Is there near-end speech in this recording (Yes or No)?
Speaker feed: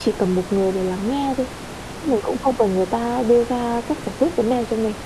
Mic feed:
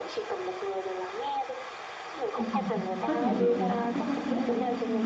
Yes